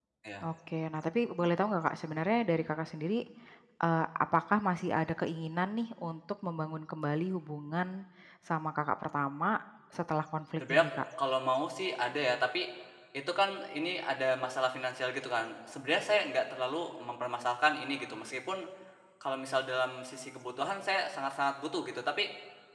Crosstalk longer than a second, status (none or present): none